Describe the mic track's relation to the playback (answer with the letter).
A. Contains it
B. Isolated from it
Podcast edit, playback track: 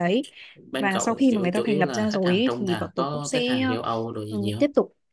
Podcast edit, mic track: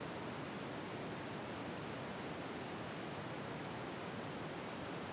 B